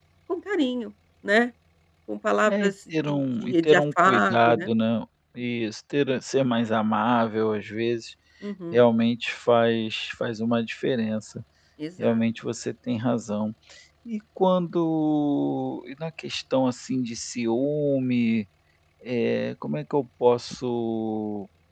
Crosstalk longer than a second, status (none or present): present